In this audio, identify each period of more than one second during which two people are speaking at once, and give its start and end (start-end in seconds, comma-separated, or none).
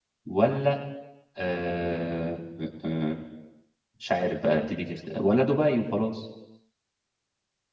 none